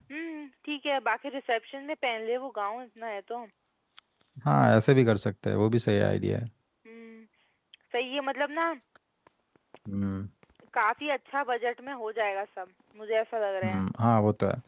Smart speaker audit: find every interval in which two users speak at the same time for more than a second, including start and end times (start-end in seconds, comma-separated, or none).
none